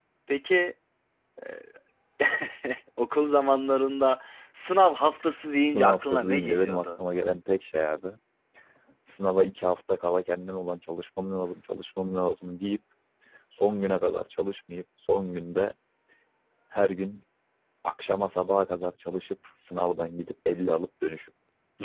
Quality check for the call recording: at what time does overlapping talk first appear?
5.6 s

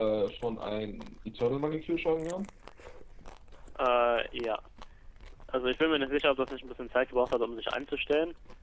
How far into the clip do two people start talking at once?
none

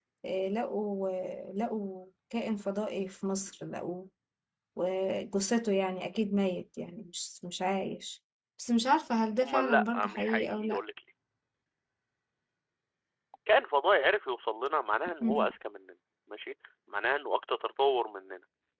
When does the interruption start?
9.4 s

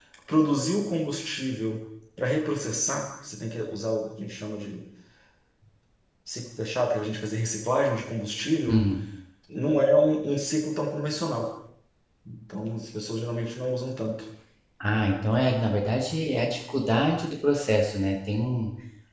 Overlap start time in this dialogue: none

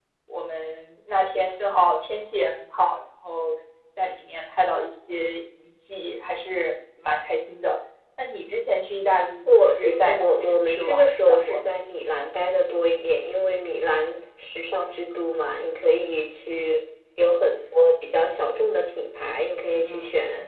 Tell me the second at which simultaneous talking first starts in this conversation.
9.4 s

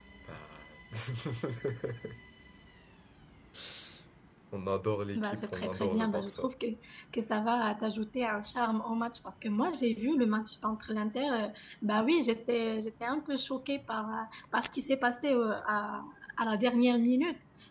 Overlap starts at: 5.2 s

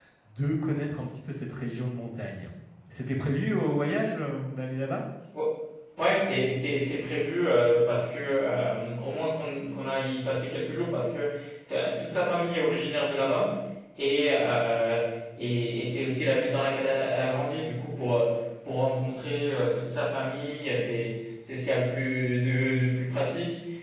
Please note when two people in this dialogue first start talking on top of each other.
none

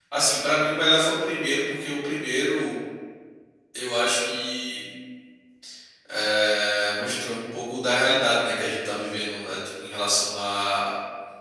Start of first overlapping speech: none

